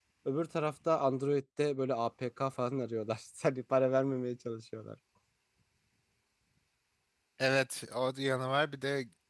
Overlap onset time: none

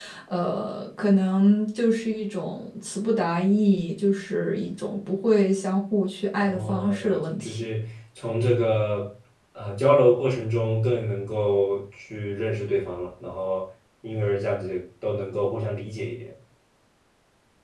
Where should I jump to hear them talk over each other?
6 s

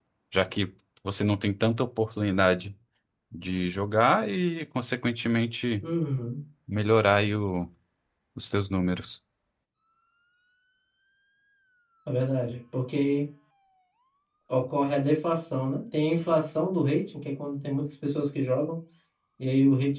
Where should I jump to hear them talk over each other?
none

